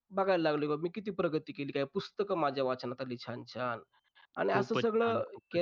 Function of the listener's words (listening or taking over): taking over